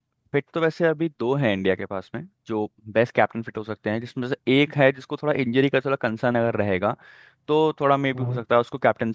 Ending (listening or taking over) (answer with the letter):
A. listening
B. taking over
A